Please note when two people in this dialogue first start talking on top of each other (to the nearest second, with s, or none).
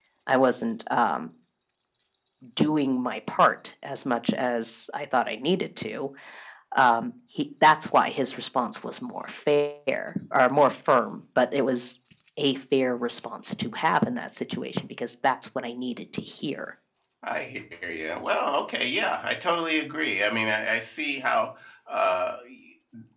none